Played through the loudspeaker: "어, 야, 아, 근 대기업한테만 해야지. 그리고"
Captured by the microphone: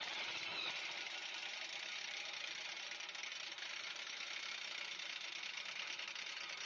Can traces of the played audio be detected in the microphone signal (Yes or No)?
No